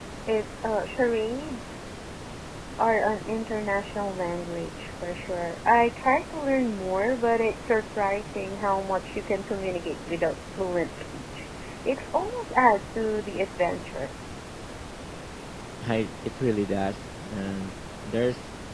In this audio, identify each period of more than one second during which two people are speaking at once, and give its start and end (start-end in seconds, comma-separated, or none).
none